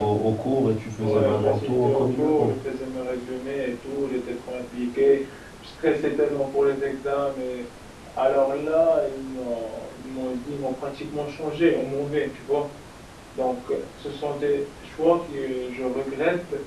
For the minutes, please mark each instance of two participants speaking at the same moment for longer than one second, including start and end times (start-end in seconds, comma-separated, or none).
1.0-2.5